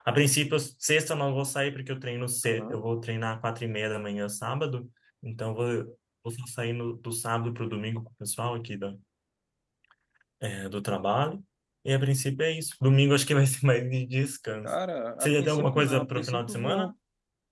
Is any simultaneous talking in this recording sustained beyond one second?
Yes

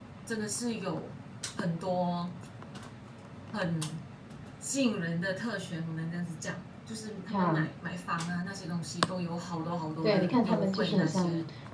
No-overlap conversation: No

